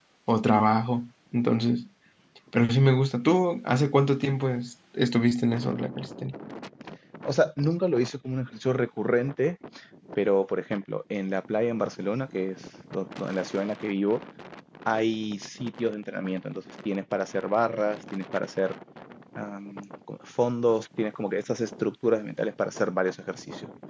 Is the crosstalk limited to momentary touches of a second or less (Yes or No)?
Yes